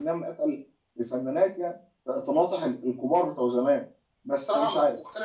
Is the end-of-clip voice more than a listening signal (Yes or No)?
Yes